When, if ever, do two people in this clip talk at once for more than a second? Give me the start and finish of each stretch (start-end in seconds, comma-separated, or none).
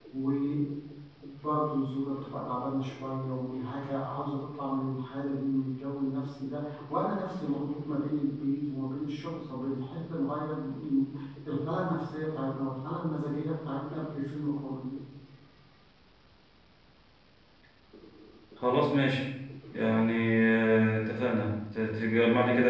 none